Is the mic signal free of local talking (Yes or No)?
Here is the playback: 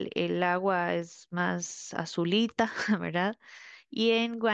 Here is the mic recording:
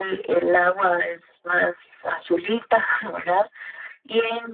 Yes